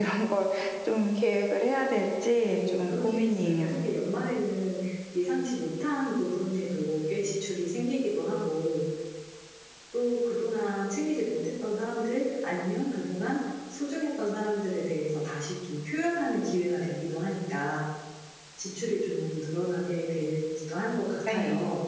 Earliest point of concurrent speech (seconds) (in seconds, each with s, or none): 2.4 s